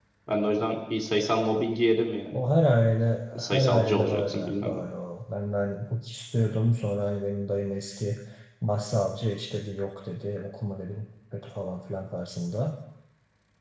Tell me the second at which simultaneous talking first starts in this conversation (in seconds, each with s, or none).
3.4 s